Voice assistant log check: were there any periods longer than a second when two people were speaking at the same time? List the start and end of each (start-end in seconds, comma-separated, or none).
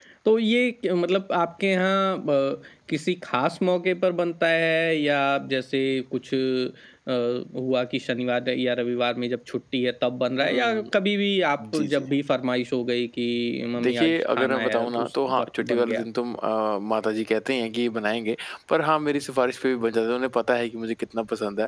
13.8-16.0